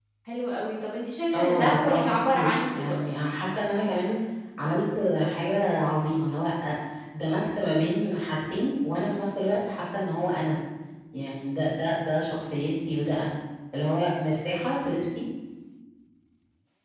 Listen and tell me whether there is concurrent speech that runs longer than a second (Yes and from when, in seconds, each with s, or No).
Yes, from 1.3 s